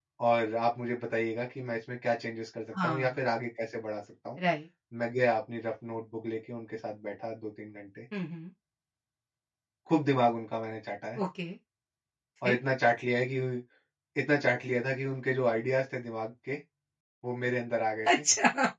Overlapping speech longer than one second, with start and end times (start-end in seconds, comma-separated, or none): none